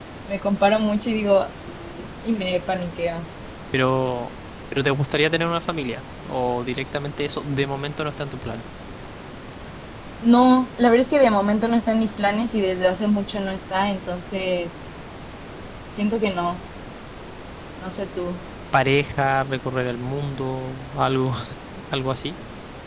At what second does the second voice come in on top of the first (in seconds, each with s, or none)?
none